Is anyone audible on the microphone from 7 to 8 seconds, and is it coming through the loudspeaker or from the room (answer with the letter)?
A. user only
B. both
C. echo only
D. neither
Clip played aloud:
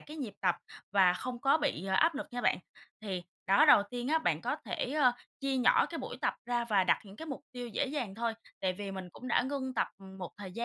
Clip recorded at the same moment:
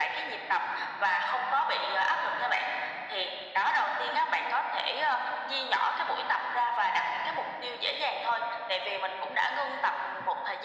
C